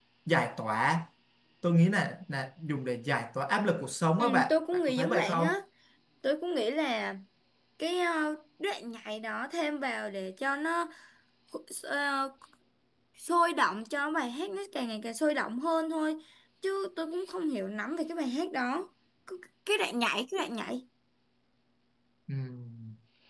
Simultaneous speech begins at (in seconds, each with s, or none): 4.2 s